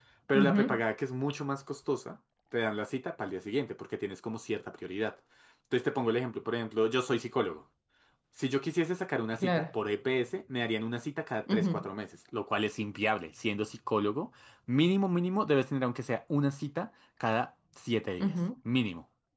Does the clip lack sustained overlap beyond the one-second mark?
Yes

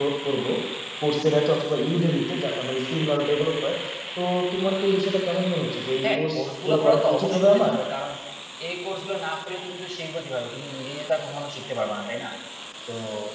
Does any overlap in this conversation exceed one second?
Yes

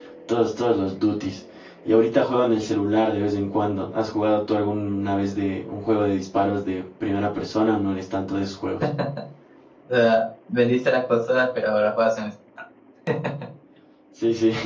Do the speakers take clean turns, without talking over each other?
Yes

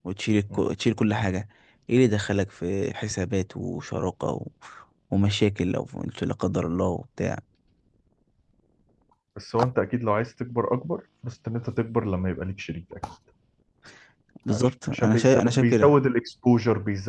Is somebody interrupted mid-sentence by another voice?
Yes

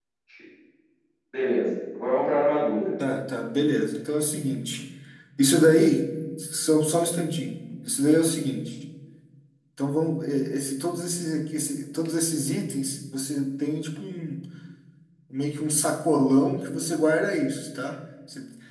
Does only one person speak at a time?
Yes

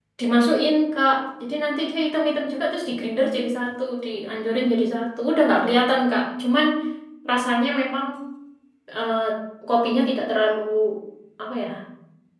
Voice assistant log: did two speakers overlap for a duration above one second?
No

